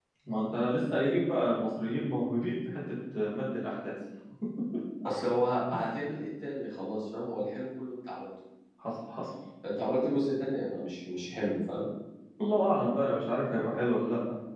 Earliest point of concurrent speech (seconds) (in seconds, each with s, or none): none